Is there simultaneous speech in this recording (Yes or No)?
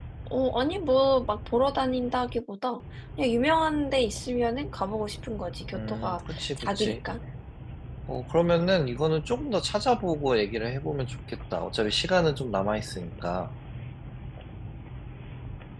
Yes